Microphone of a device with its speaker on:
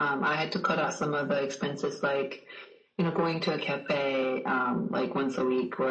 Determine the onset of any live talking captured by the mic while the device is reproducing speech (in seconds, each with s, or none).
none